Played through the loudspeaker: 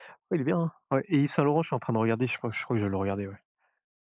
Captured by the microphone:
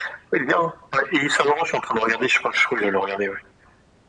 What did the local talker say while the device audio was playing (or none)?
none